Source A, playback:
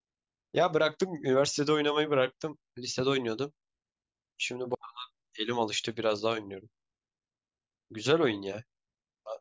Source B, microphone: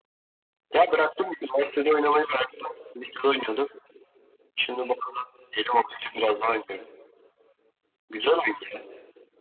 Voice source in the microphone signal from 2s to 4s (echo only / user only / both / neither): echo only